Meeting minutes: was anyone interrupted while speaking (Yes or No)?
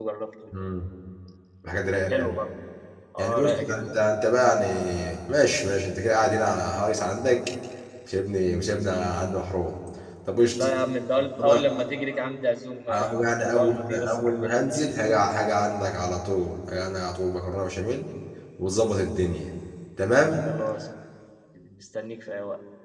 Yes